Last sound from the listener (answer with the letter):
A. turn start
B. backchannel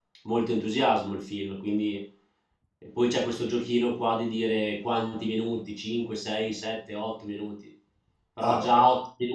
B